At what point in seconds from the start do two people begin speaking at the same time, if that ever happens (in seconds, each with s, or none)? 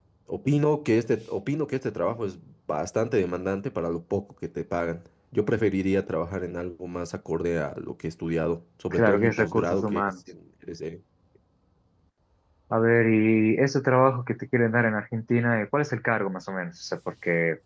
8.9 s